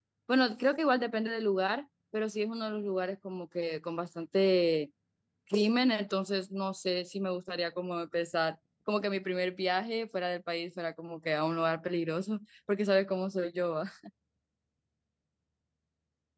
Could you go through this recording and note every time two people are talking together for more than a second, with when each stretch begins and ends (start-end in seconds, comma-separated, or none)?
none